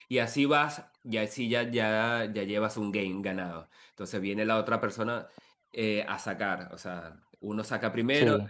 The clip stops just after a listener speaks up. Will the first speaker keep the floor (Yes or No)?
Yes